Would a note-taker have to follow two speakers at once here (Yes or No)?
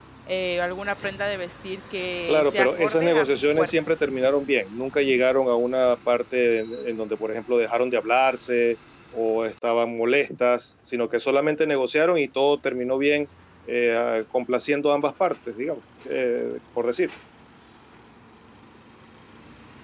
Yes